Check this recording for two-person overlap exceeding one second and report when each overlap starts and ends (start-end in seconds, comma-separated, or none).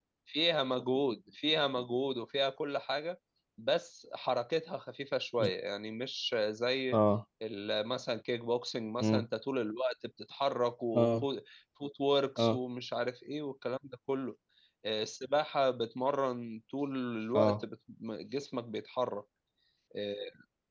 none